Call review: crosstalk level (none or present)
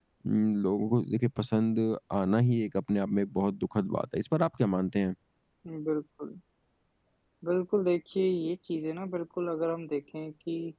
none